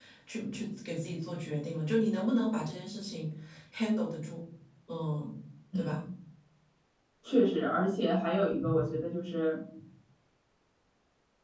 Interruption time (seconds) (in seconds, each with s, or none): none